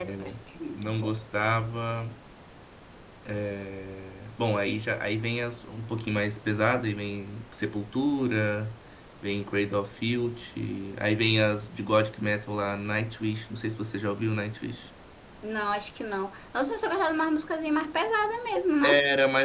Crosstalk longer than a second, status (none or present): none